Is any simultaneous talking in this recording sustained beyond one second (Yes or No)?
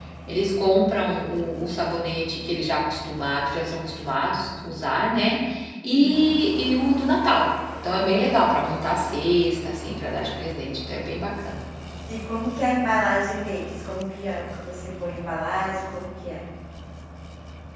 No